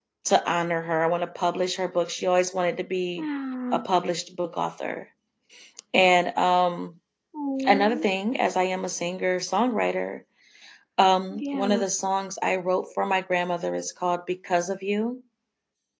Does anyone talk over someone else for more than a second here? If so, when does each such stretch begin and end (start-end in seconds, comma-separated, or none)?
none